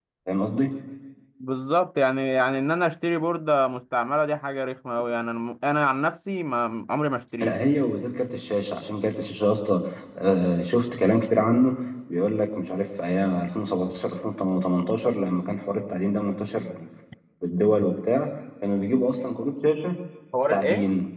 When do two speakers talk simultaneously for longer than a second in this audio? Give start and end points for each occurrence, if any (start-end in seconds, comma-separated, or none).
none